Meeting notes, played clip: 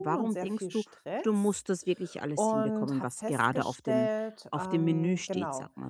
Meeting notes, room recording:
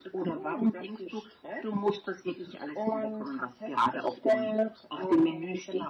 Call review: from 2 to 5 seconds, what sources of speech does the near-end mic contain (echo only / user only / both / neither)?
echo only